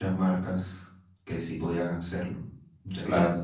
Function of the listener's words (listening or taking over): taking over